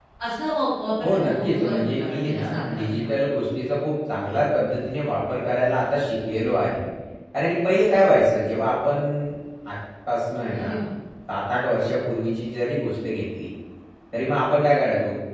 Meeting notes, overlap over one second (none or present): present